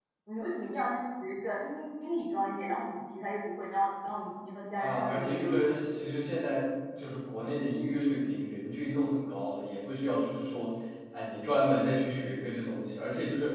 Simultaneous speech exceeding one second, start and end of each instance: 4.8-6.0

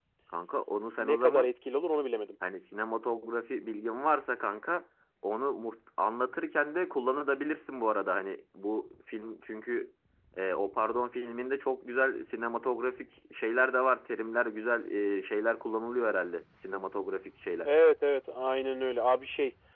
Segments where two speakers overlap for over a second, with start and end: none

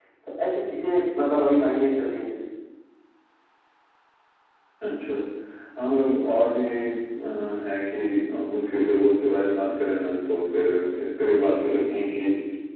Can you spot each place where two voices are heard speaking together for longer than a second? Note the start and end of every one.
none

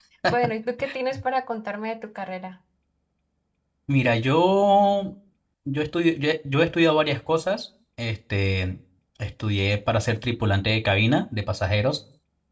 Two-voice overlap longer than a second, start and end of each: none

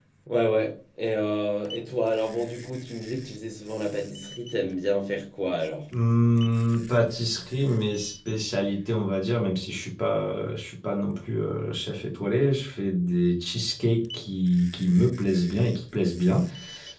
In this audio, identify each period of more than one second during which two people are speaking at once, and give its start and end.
none

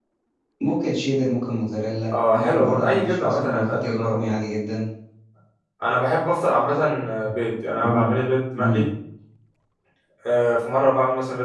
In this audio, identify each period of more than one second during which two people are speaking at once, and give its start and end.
2.1-4.3

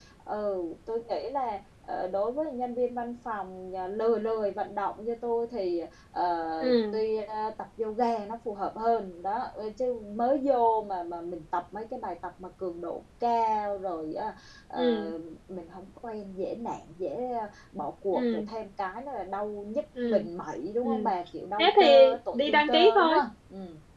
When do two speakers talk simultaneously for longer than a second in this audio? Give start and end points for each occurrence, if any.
21.6-23.2

